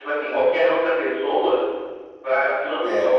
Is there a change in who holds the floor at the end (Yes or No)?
No